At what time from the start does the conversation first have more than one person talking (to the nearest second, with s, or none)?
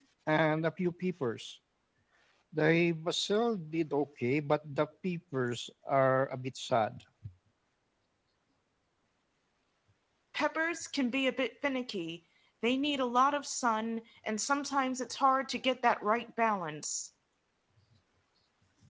none